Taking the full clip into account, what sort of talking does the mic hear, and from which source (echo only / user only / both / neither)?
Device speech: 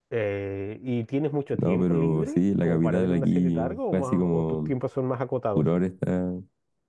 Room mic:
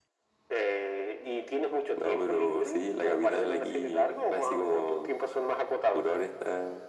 echo only